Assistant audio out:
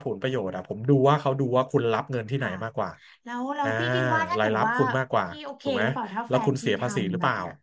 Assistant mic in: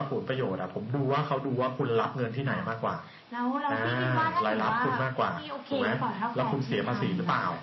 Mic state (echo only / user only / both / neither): echo only